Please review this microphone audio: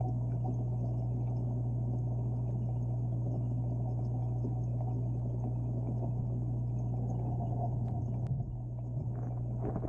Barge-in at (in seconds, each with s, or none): none